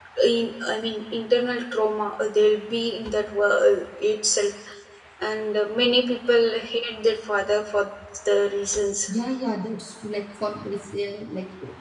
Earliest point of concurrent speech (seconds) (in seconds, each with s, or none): none